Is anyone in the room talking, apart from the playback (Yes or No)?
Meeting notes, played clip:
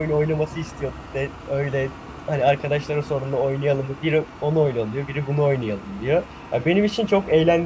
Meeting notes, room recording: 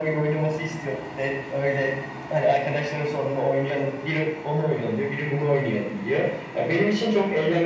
No